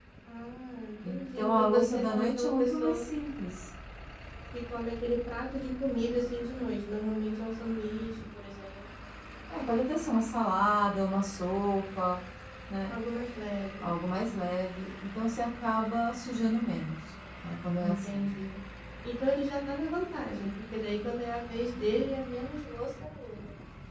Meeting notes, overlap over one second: present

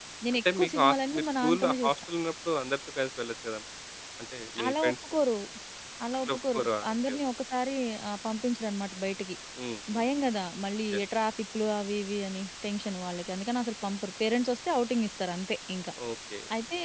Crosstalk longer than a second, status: present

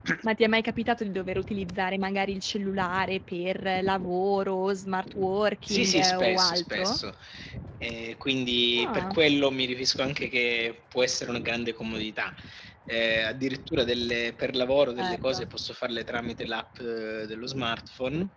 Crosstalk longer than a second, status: present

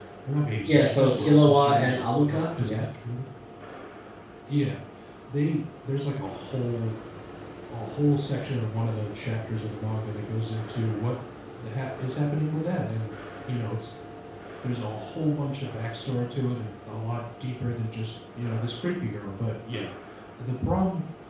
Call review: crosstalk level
present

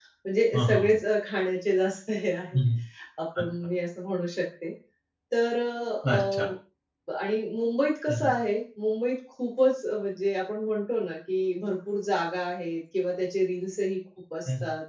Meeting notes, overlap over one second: none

